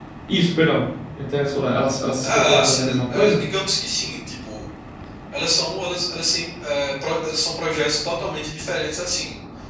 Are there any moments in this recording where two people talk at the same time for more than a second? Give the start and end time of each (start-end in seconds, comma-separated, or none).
2.2-3.5